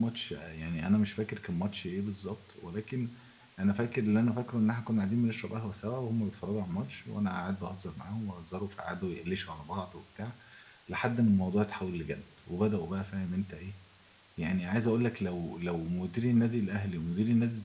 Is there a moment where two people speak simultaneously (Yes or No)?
No